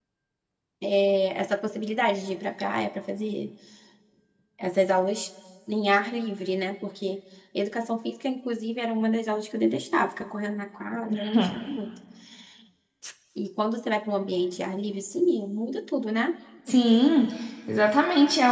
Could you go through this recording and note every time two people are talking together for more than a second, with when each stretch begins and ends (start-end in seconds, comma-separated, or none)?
none